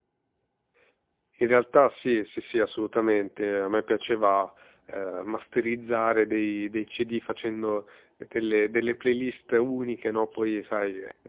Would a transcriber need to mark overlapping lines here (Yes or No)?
No